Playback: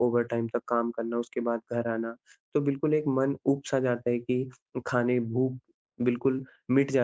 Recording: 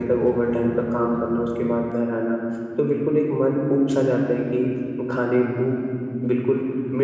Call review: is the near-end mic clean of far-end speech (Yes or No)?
No